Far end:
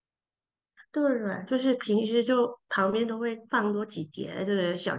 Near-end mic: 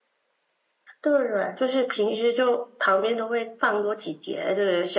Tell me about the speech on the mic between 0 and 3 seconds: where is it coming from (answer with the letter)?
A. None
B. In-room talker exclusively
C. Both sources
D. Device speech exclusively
D